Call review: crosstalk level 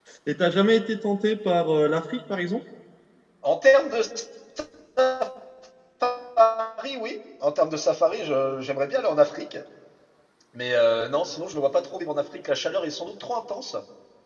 none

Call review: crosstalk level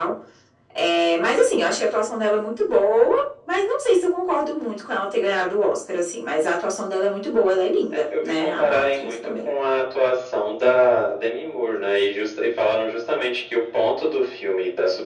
present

